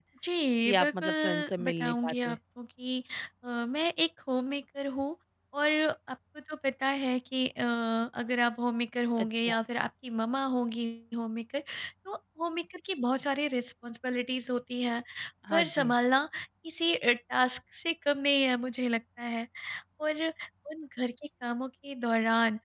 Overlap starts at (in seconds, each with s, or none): 0.7 s